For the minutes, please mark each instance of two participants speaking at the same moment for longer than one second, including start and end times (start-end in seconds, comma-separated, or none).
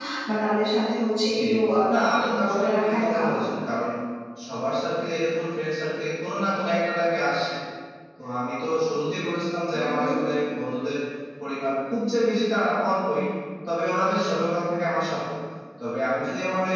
1.9-3.3